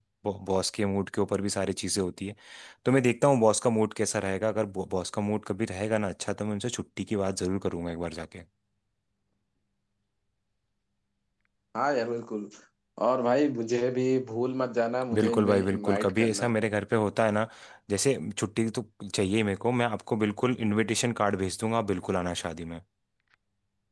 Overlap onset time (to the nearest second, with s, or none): 15 s